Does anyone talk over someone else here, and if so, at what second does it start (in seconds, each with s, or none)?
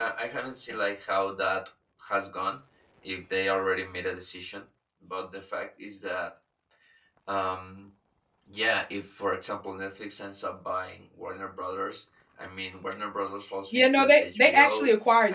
13.7 s